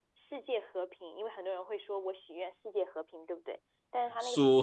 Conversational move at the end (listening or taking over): taking over